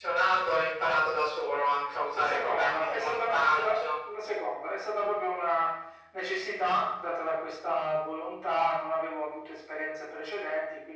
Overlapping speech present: Yes, from 2.1 s

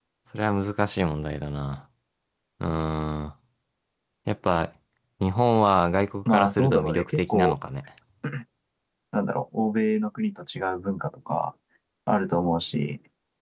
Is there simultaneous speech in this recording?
Yes, from 6.3 s

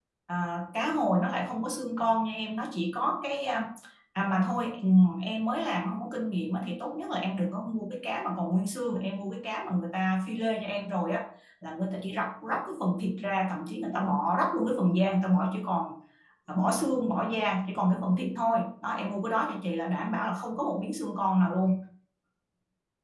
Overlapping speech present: No

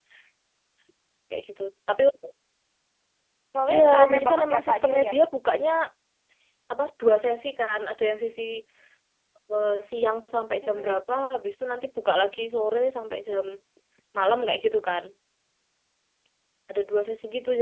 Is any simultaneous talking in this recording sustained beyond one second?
Yes, from 3.7 s

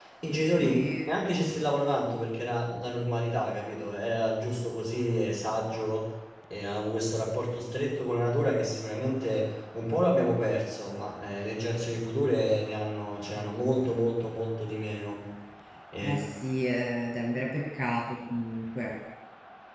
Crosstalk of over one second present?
No

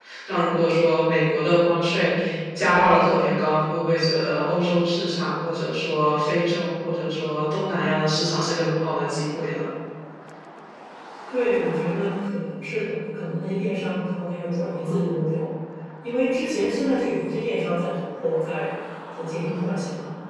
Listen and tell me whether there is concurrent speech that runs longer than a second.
No

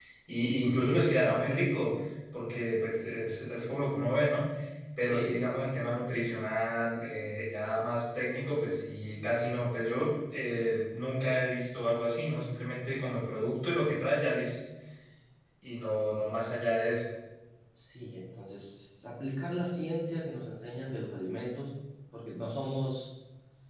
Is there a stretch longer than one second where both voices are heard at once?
No

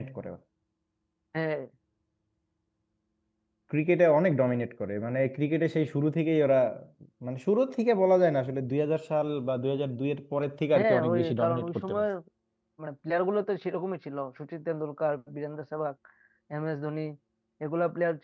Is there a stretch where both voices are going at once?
Yes, from 10.8 s

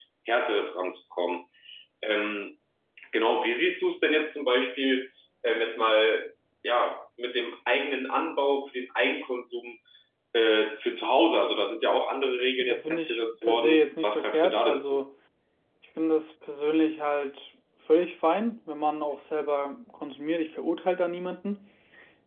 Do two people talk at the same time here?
Yes, from 12.6 s

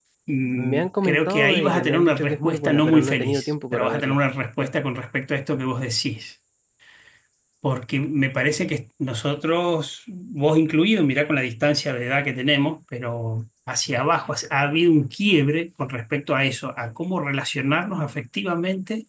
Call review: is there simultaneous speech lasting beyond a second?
Yes, from 0.5 s

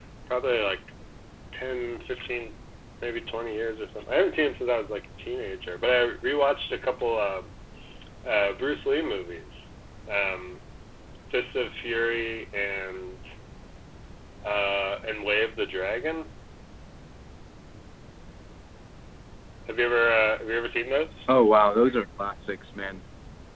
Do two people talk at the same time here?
No

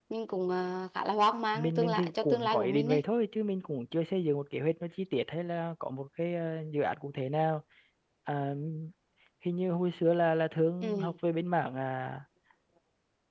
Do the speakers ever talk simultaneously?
Yes, from 1.5 s

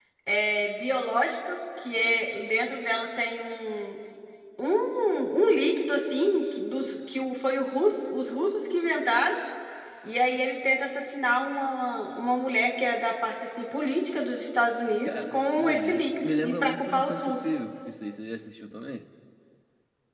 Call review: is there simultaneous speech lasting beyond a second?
Yes, from 15.0 s

